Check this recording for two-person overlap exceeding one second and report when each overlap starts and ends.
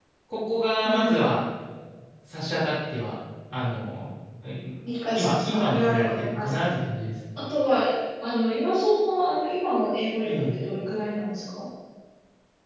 5.1-6.6

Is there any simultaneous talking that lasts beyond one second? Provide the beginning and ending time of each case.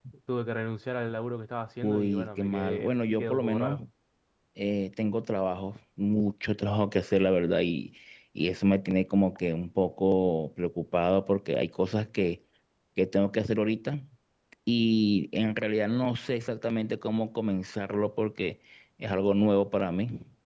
1.8-3.8

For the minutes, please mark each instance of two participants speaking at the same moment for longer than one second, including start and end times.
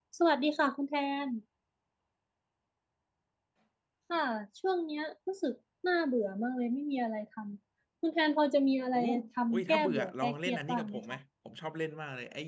9.5-11.0

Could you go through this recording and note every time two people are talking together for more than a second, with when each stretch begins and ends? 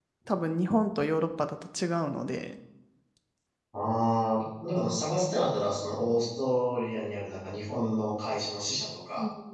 none

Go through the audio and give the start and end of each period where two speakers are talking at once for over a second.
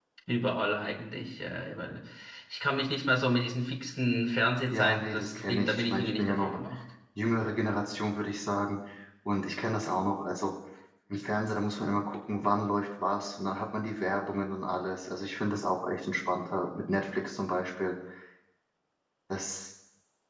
4.7-6.6

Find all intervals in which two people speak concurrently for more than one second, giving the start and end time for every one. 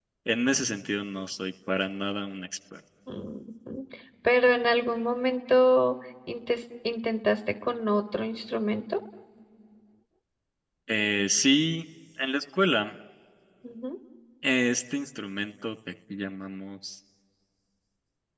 none

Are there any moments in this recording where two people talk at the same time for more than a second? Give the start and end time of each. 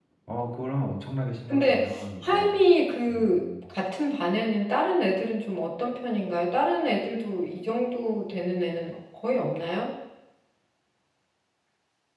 none

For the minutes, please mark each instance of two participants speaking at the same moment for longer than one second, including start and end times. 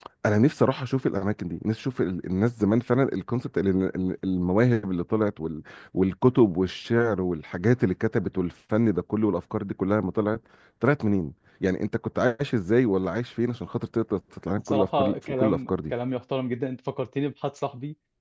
14.7-15.9

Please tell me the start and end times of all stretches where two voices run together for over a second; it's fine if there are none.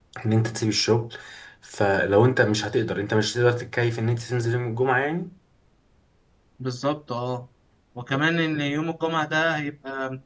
none

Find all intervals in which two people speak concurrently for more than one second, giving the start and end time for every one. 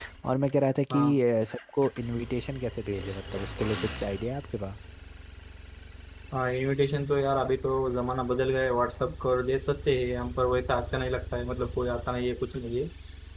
none

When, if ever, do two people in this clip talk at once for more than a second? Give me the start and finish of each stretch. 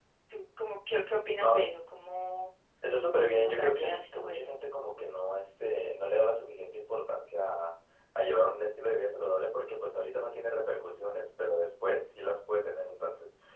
3.3-4.6

